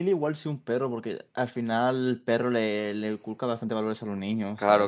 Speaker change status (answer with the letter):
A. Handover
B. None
A